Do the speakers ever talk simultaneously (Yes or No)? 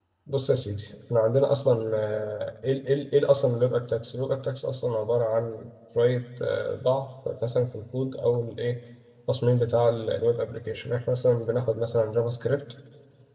No